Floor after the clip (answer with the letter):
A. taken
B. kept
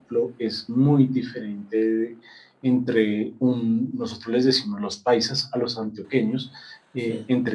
B